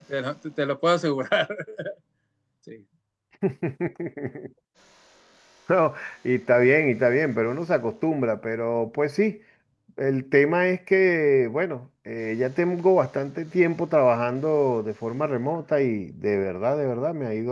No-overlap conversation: Yes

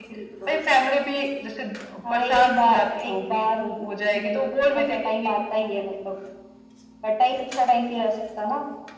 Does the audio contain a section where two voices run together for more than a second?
Yes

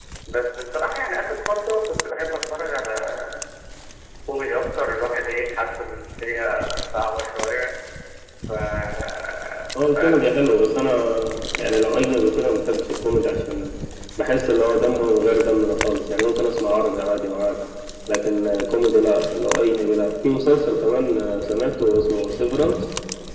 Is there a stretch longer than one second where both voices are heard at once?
No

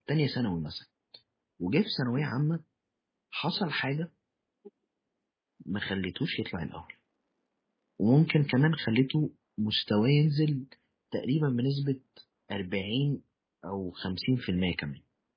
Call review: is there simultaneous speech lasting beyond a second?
No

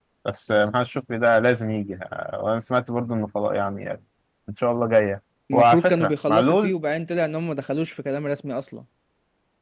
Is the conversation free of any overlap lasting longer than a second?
No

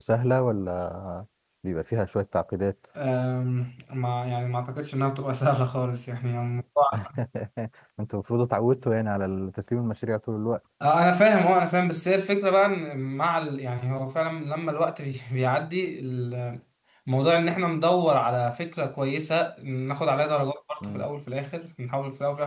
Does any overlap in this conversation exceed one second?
No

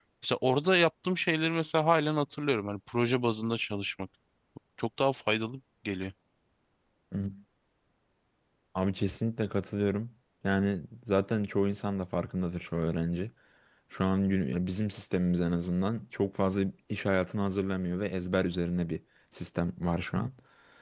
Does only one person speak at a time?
Yes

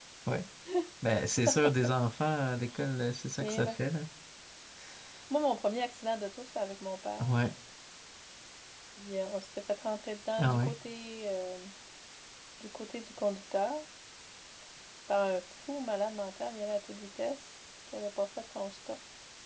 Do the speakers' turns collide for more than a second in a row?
No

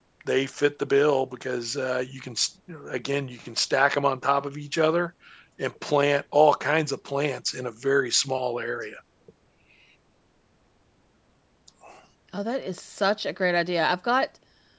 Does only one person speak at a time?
Yes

